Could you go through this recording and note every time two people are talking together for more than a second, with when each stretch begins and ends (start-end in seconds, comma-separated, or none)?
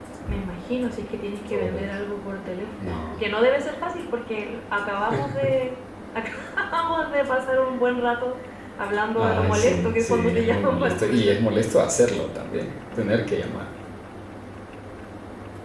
9.2-11.8